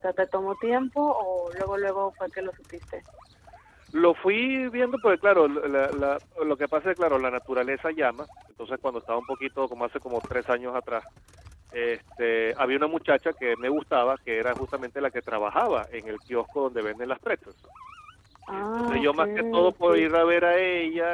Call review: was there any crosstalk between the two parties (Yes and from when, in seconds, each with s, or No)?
Yes, from 18.5 s